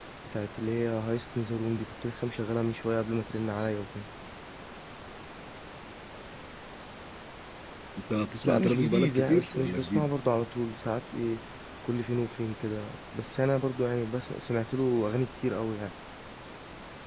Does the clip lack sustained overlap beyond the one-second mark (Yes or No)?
No